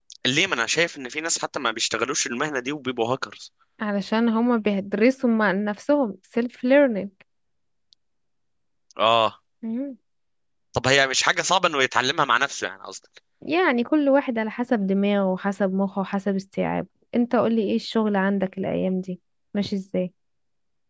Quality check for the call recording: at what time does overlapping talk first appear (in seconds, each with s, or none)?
none